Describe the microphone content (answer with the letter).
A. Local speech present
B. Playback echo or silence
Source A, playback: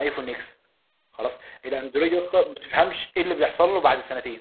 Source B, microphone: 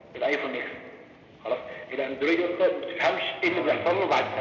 A